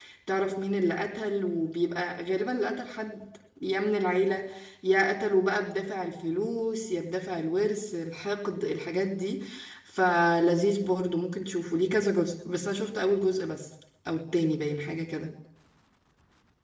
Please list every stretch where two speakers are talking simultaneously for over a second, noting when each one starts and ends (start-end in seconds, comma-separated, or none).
none